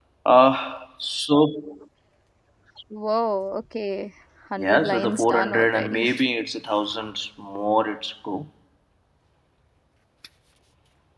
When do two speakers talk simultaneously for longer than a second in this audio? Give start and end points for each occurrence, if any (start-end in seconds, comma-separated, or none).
4.6-6.1